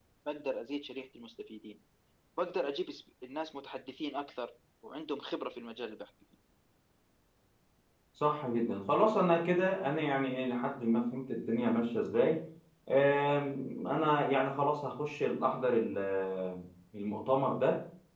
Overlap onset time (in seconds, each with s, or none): none